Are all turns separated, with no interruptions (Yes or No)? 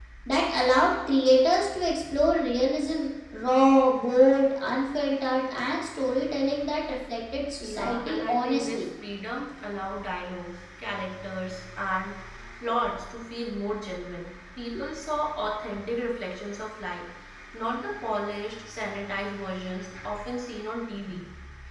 No